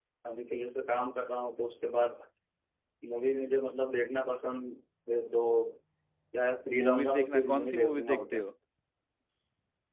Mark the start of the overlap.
6.8 s

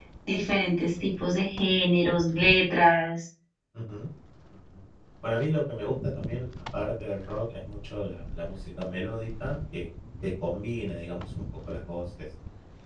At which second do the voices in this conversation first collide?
none

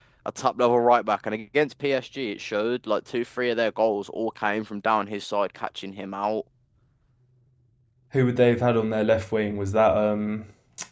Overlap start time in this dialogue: none

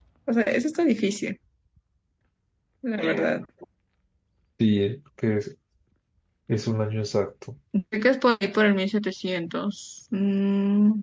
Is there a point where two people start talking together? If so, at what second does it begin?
none

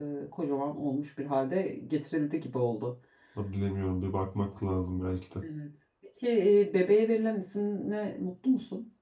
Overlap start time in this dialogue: none

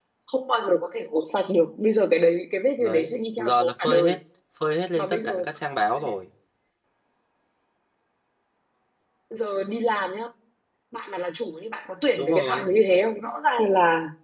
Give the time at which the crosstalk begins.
2.8 s

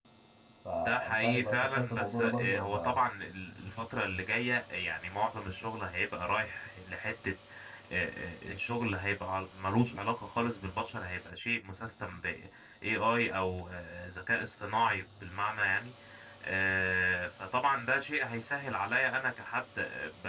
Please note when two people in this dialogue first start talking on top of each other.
0.8 s

